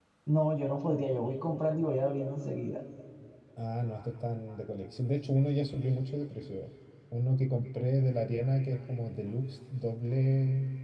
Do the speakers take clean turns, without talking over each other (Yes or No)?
Yes